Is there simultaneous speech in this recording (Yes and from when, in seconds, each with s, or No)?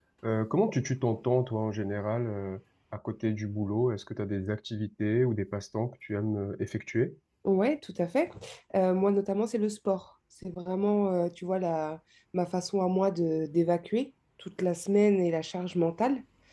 No